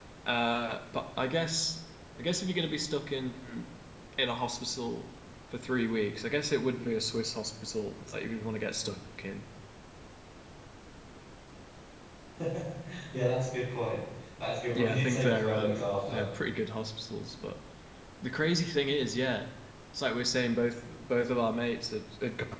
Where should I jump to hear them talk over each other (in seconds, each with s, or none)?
14.7 s